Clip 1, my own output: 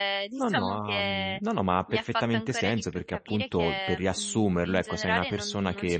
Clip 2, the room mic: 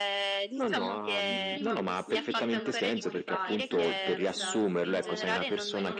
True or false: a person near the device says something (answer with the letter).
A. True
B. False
A